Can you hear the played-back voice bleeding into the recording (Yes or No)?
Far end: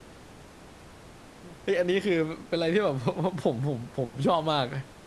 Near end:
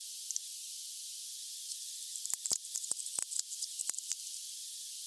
No